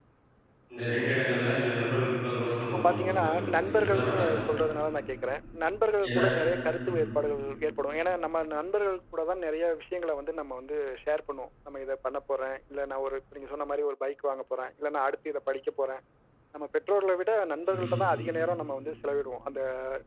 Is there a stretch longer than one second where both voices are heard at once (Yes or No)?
Yes